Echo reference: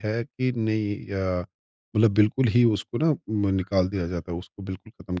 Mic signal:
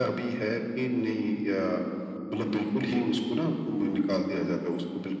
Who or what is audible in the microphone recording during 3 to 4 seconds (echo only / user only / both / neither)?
echo only